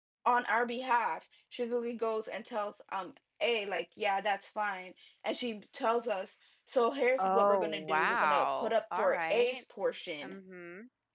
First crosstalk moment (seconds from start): 7 s

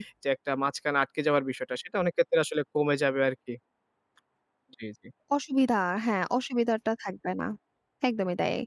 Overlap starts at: none

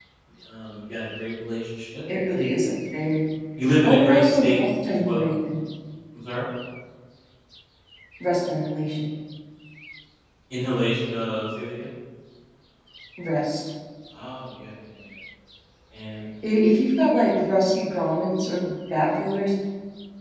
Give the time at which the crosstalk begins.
4 s

